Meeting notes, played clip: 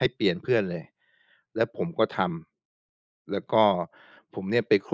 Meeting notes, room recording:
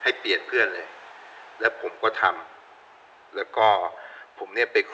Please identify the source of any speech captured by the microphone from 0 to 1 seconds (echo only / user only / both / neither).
echo only